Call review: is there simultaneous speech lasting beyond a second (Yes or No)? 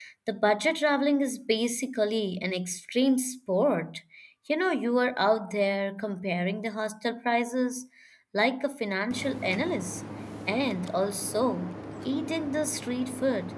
No